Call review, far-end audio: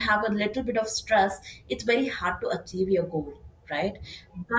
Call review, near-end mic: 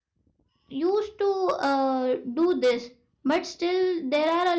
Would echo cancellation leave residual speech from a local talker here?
Yes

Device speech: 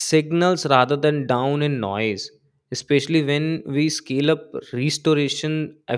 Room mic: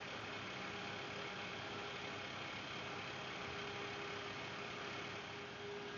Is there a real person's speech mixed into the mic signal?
No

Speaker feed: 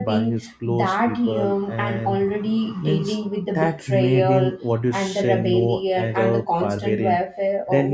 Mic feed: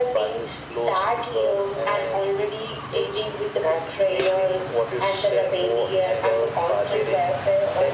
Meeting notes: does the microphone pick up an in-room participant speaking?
No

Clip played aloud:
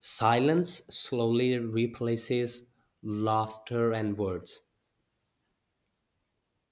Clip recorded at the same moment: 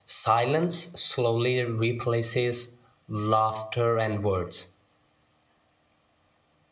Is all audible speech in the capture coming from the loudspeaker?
Yes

